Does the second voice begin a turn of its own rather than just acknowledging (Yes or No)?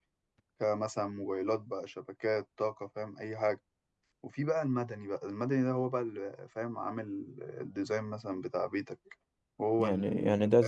Yes